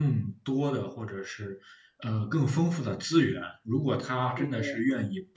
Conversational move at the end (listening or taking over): listening